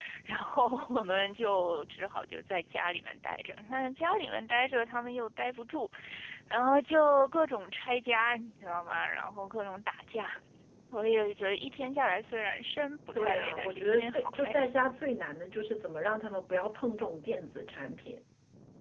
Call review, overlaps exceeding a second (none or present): present